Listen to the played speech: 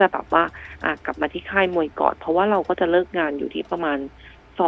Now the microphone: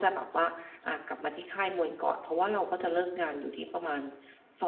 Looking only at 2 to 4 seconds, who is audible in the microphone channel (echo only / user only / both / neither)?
echo only